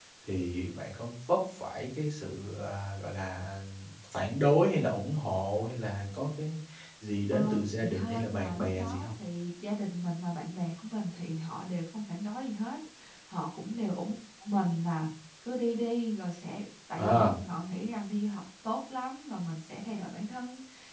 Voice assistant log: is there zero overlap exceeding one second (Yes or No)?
No